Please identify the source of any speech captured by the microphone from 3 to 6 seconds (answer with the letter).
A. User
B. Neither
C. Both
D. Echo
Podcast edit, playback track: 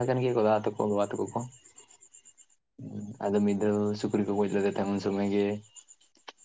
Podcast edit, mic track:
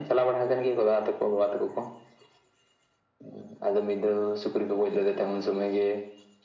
D